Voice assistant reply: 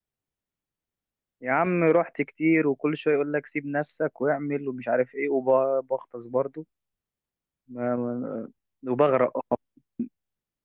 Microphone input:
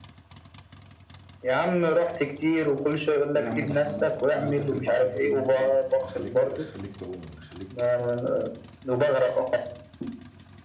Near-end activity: present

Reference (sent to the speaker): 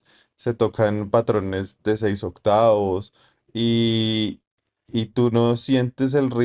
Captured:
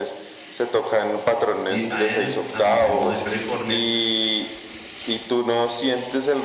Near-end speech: present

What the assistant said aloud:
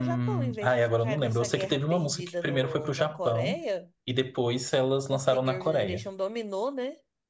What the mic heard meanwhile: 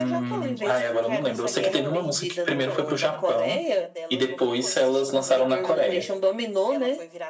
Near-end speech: present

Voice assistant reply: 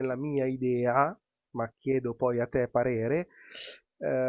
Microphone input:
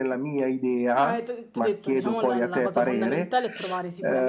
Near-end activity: present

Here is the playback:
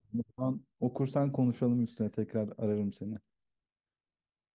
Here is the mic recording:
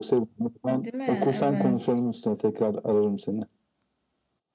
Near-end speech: present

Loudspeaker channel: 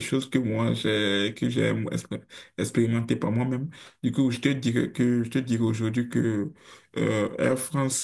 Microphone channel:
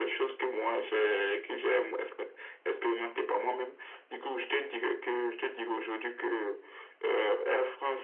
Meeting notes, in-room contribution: none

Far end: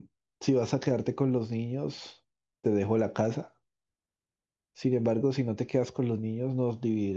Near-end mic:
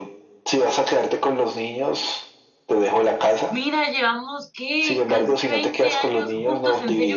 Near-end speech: present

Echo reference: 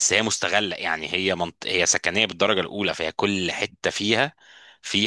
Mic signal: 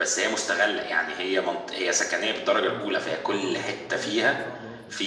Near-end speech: present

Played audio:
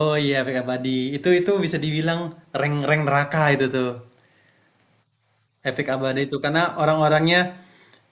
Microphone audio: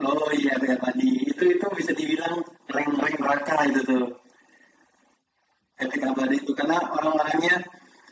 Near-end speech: none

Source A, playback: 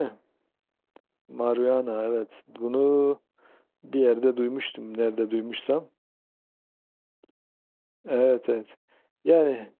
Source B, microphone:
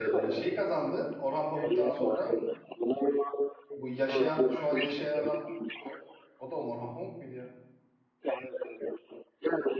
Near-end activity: present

